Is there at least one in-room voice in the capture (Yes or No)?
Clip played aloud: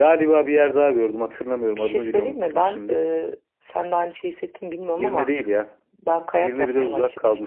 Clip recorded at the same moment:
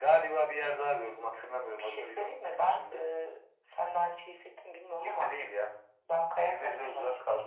No